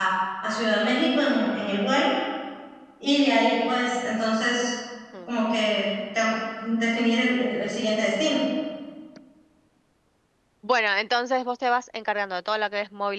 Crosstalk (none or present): none